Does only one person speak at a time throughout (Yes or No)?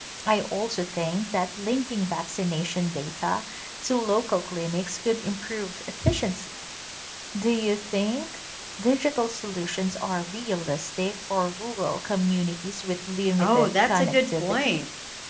No